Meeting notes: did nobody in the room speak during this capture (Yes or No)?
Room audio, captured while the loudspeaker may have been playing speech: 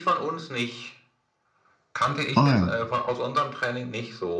No